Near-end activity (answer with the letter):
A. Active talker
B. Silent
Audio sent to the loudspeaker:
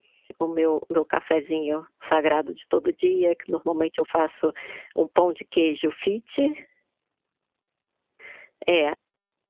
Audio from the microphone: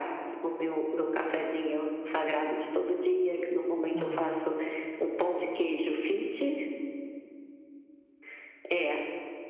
A